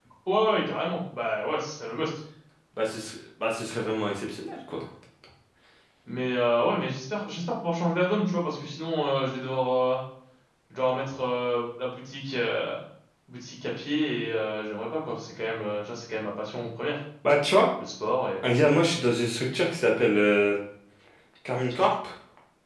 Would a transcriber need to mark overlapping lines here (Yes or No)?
No